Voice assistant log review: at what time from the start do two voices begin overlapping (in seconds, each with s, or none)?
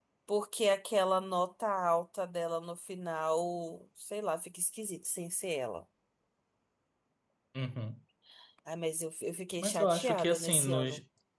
9.6 s